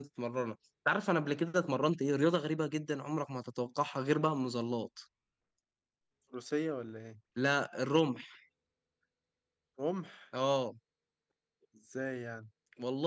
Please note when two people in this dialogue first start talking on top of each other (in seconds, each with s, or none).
none